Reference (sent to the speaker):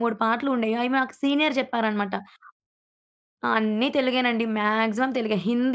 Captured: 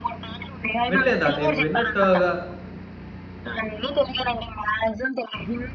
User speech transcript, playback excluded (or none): వినలేదా అది? విన్నట్టుగా